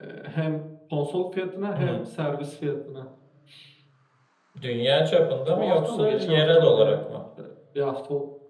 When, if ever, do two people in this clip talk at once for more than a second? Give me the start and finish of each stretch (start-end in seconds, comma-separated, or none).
5.5-7.0